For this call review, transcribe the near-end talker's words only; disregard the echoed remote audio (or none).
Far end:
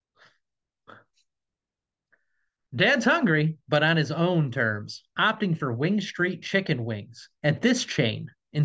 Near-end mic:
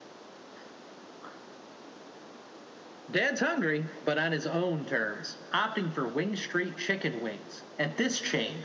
none